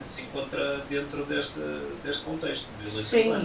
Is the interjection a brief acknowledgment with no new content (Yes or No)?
No